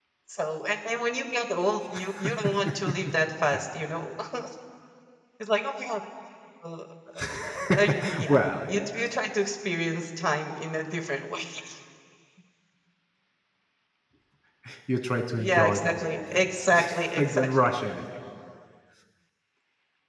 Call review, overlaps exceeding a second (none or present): present